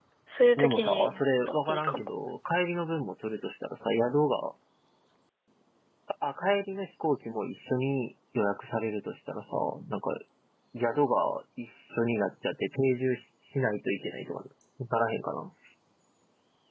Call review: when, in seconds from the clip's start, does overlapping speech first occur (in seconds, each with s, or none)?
0.6 s